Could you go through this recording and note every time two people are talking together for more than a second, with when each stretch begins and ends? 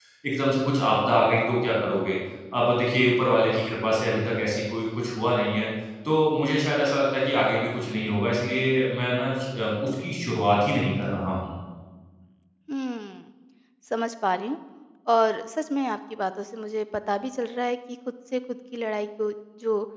none

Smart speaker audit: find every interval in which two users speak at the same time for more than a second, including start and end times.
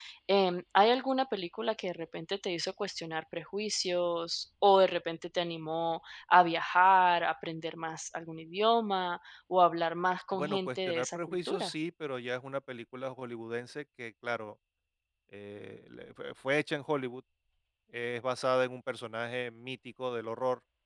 10.3-11.7

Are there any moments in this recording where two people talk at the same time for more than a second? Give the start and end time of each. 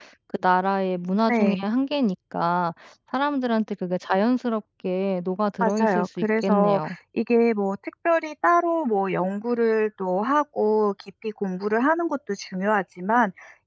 5.6-6.9

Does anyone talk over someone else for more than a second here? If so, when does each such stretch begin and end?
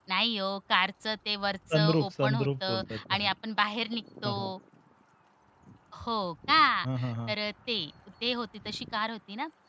1.7-3.3

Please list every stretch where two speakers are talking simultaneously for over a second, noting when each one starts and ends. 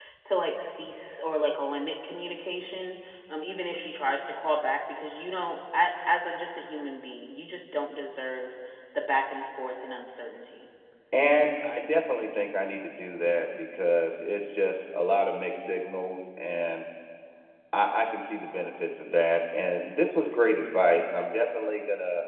none

